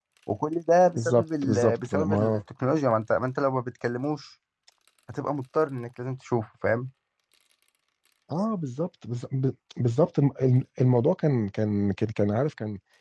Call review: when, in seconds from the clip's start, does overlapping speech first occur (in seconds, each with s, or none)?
1.0 s